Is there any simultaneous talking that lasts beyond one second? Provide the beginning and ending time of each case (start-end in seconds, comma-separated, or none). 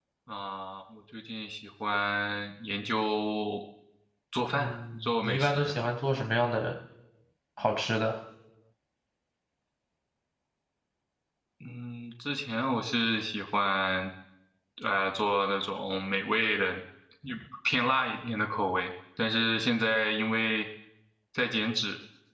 4.5-5.7